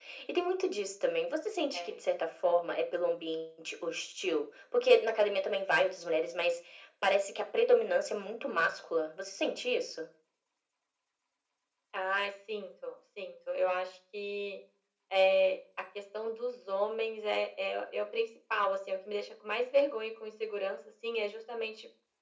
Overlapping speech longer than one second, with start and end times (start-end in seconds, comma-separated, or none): none